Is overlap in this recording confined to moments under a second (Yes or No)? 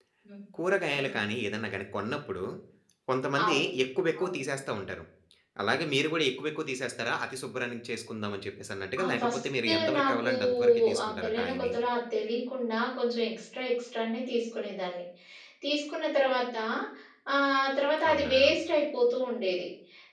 No